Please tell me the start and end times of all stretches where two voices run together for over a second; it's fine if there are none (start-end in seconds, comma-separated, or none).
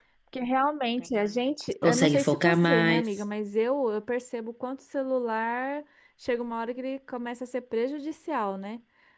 1.8-3.1